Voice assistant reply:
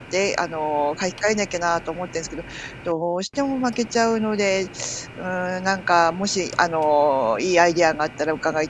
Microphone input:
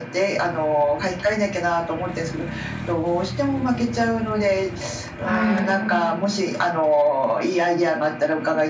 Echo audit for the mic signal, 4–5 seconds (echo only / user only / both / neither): echo only